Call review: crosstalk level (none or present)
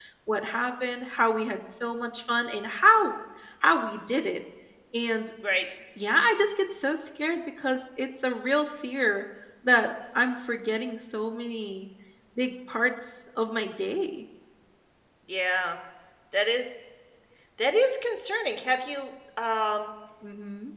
none